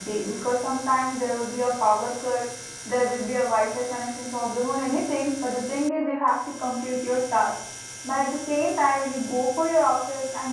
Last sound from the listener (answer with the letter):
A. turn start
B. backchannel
B